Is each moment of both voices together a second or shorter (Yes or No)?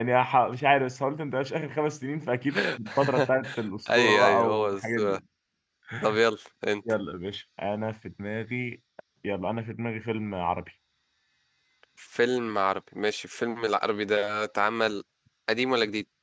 No